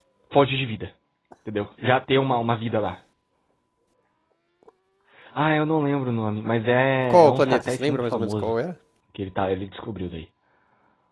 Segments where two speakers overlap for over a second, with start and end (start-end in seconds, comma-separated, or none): 7.1-8.5